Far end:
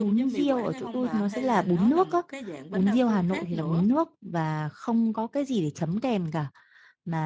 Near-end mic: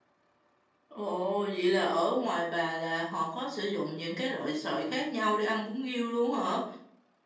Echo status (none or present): none